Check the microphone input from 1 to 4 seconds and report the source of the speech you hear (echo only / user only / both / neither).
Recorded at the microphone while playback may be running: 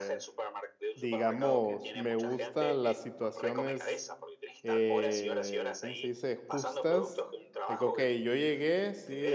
both